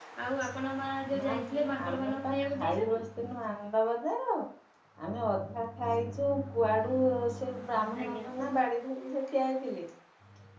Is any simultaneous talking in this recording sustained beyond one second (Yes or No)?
Yes